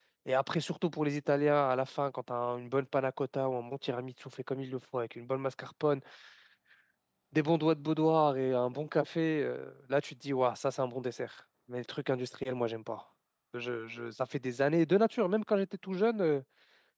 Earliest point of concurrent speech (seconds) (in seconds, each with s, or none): none